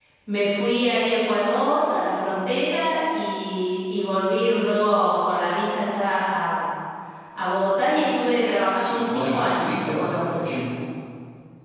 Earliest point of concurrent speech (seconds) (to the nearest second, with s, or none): 9 s